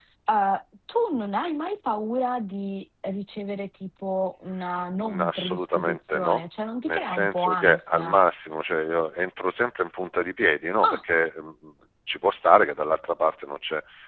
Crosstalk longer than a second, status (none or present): present